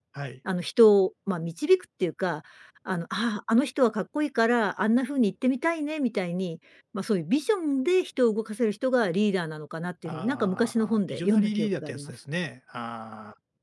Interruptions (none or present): present